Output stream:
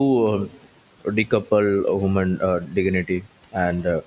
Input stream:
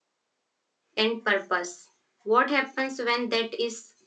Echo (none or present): none